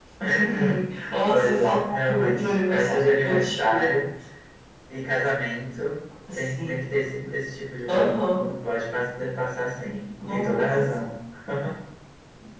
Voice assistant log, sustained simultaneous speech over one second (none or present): present